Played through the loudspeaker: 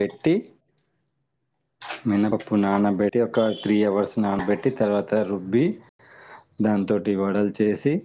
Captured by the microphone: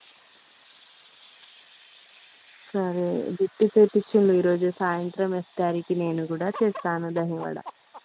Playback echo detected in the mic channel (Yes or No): No